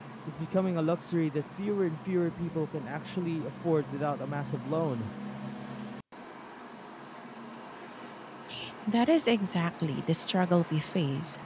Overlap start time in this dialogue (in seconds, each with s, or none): none